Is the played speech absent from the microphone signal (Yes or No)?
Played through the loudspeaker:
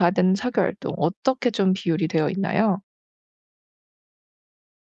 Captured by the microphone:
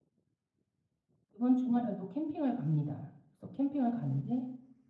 Yes